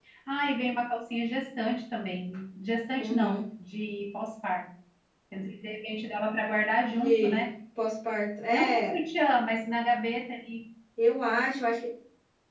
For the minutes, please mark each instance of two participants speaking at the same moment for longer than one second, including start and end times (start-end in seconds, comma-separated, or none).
none